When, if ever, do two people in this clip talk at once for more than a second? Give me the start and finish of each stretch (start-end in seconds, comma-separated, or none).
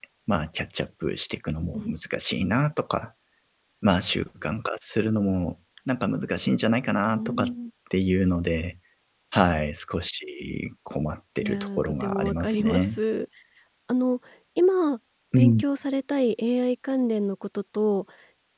11.4-13.0